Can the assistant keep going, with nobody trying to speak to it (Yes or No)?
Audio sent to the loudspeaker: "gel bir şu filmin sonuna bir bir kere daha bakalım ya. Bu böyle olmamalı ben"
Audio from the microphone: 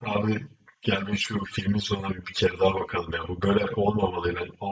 Yes